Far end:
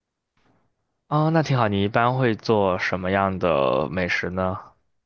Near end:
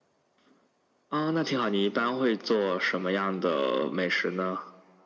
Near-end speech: none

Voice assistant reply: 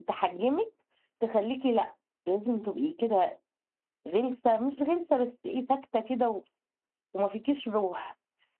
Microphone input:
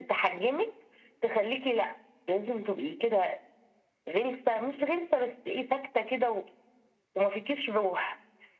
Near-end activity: none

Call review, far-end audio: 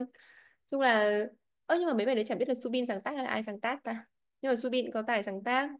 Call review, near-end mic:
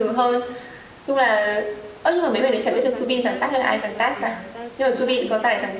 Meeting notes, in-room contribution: present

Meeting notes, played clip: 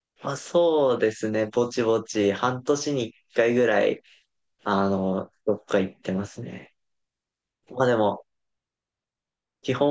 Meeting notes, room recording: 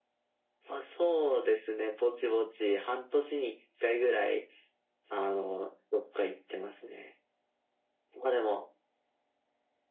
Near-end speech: none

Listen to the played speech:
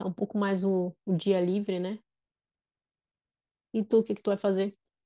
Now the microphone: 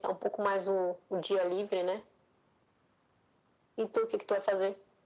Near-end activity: none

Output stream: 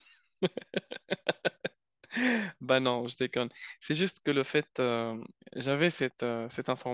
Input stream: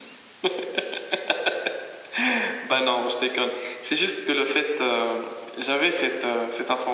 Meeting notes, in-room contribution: none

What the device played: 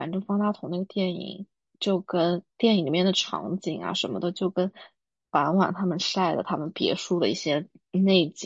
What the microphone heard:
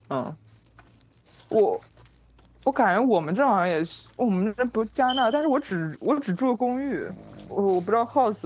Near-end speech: present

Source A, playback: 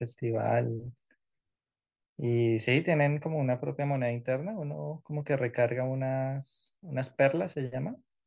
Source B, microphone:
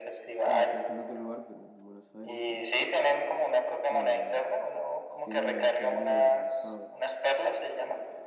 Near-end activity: present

